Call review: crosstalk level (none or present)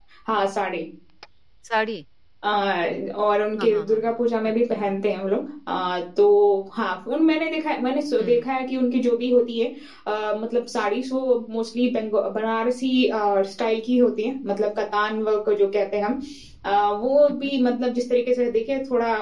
present